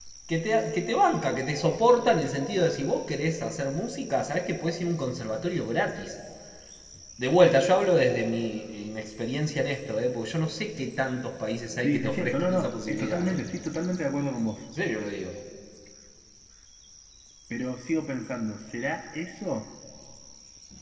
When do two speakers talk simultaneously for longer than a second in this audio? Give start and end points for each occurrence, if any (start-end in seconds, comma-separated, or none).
11.8-13.5